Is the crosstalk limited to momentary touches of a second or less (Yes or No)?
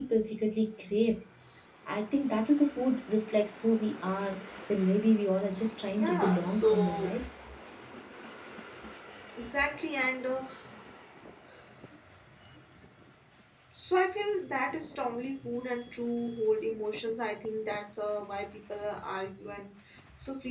No